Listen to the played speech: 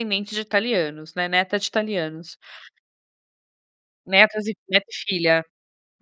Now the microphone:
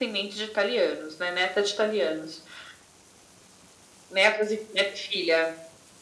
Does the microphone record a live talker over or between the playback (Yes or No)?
No